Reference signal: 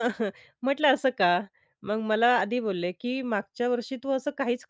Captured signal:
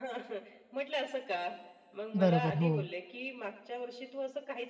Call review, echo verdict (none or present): present